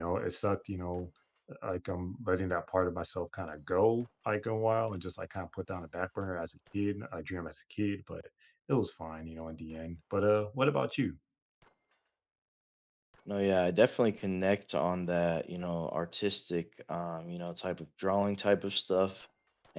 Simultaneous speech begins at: none

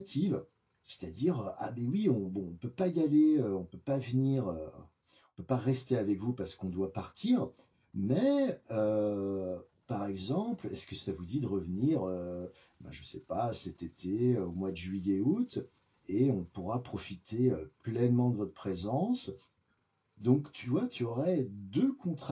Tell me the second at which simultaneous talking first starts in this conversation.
none

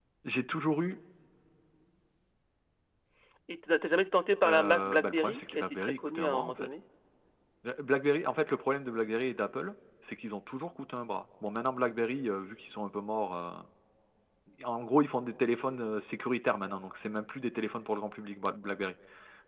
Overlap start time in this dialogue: 4.4 s

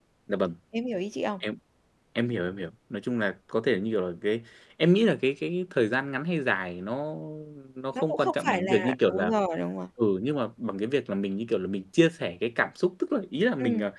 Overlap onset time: 7.9 s

